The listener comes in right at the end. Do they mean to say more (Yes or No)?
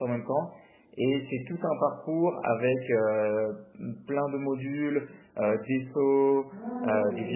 No